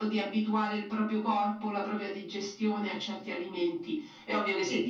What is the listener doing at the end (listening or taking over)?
listening